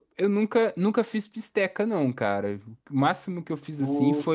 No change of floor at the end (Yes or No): Yes